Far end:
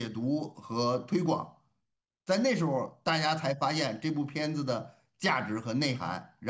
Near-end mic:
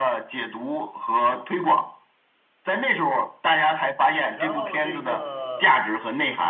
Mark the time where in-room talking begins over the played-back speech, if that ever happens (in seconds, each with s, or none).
4.3 s